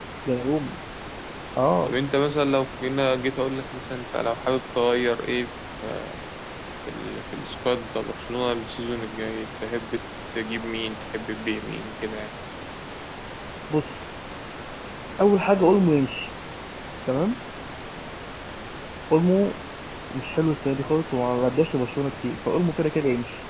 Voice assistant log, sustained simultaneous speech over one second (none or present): none